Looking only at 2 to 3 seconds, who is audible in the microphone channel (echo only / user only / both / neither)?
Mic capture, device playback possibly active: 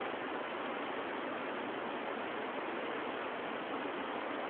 neither